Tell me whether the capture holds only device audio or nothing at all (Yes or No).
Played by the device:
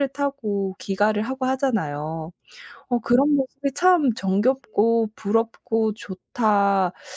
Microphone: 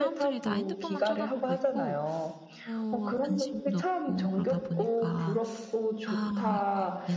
No